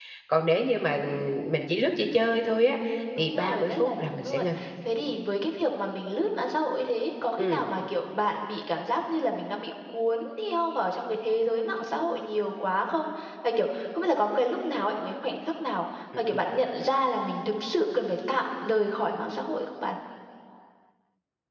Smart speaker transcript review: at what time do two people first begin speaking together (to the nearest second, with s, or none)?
3 s